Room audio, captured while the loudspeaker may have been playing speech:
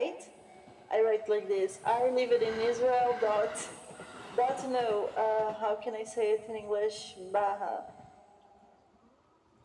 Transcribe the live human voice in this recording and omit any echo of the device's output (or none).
none